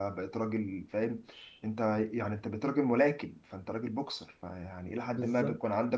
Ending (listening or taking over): listening